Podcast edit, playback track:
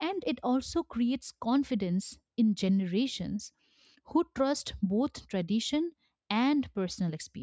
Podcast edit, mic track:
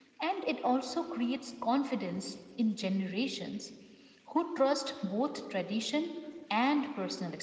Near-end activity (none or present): none